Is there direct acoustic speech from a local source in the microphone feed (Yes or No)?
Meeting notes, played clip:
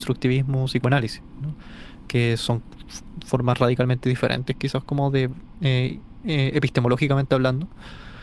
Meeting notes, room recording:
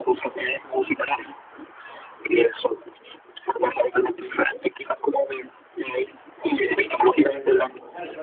Yes